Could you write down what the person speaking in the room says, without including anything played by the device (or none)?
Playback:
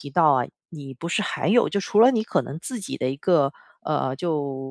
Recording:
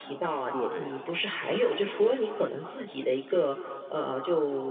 做这一行啊？要不要就是说